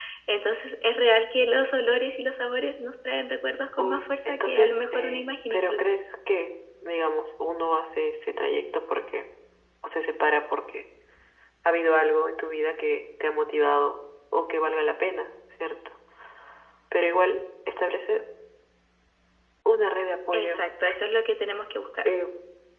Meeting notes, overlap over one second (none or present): present